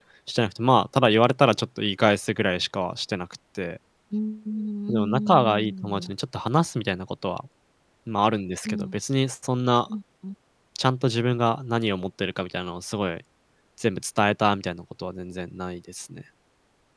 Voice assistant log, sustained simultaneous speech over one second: present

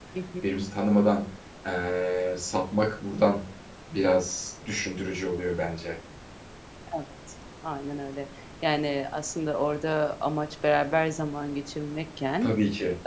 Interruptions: none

